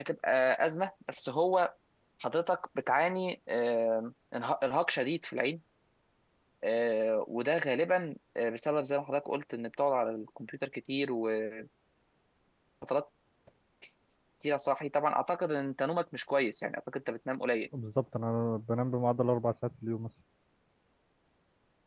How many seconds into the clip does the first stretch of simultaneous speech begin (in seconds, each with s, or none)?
none